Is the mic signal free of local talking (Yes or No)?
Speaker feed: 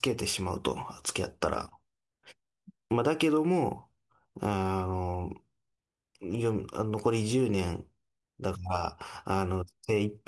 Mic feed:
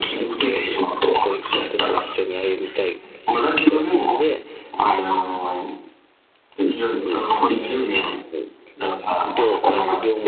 No